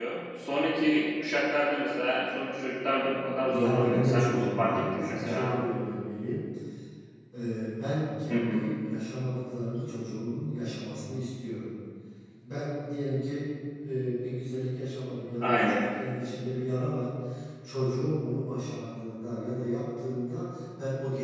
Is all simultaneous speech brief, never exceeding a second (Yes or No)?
No